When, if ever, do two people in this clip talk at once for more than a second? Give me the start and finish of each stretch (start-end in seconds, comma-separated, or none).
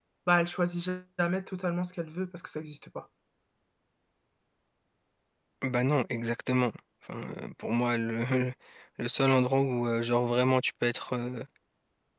none